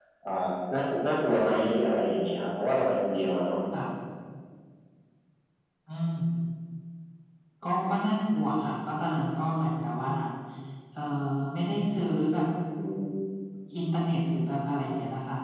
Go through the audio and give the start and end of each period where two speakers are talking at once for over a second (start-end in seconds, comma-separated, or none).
none